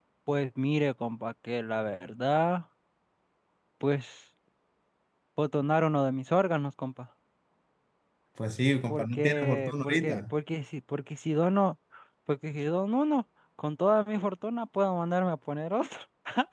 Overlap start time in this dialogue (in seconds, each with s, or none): 8.9 s